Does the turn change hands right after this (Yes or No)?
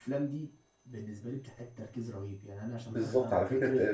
Yes